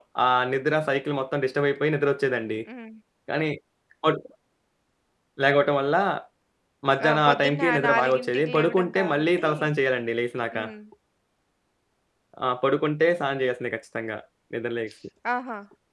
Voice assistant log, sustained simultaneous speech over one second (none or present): present